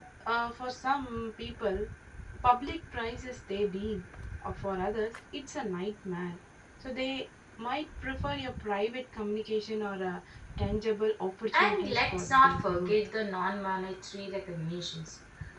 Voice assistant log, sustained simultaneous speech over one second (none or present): present